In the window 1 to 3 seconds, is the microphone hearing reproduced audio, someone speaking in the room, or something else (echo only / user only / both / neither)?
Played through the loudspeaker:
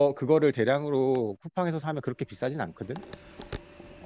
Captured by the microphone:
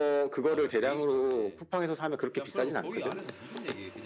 both